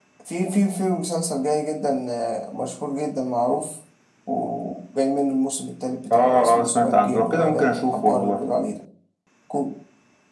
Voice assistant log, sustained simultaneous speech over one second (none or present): present